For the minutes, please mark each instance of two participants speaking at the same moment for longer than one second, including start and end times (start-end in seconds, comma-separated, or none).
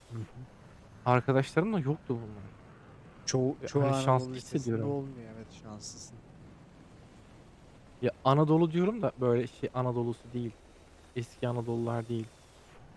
3.7-5.0